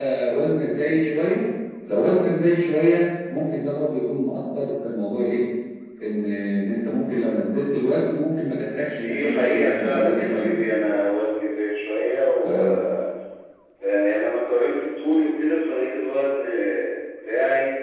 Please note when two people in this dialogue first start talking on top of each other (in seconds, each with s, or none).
9.0 s